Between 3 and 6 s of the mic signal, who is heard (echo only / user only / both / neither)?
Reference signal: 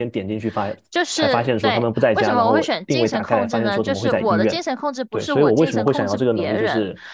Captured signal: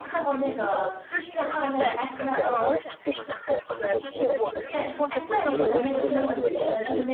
both